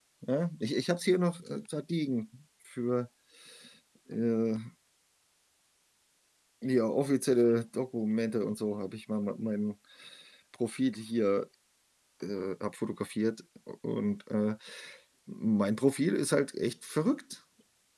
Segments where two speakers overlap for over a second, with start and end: none

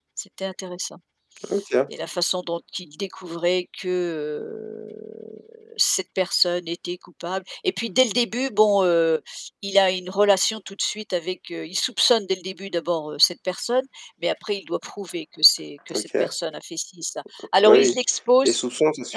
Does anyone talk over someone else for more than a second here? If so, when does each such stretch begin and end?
none

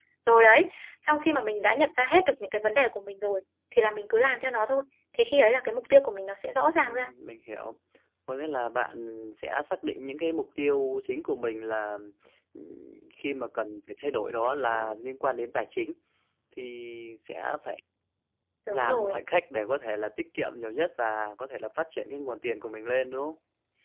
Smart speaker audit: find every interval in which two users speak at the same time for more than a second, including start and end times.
none

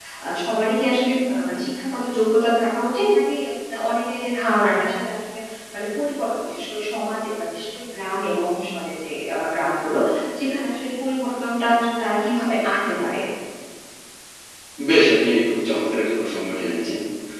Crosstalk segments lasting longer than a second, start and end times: none

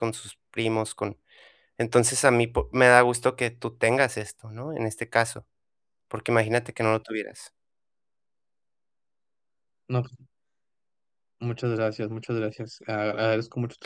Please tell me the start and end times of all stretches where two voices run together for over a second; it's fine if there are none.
none

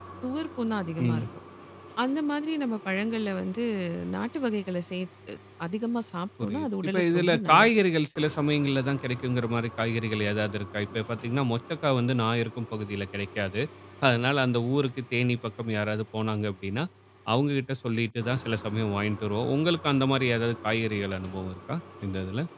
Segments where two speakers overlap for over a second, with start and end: 6.4-7.7

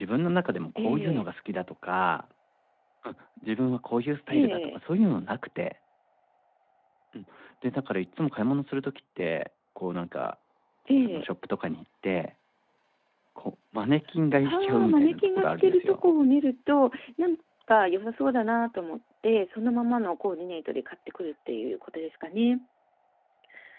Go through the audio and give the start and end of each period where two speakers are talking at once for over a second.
14.4-16.0

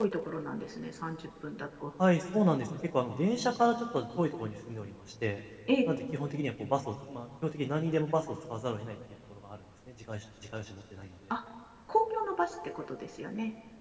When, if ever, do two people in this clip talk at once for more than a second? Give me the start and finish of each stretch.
none

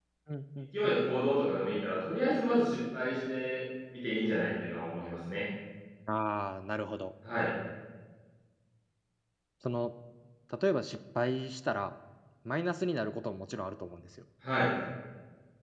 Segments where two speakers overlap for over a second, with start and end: none

